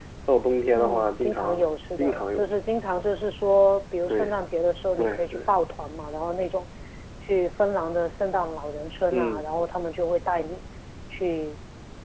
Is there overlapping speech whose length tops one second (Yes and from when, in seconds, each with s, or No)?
Yes, from 0.8 s